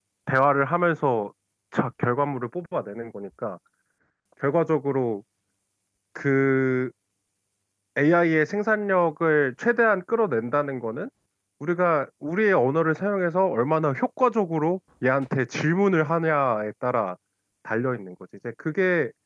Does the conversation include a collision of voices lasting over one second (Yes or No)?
No